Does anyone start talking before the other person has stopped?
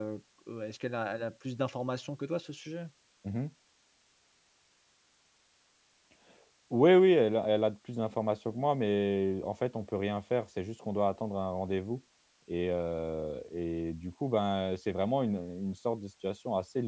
No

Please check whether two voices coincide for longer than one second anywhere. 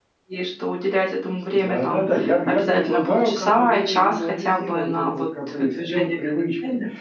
Yes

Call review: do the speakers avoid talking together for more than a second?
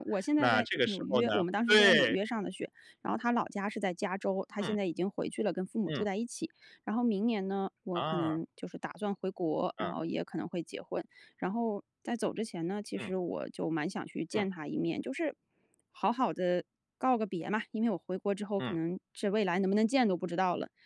No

